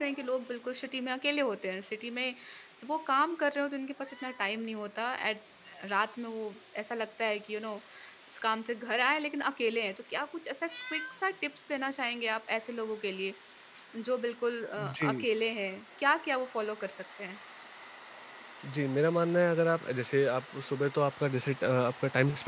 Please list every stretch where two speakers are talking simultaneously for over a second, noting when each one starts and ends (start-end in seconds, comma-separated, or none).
none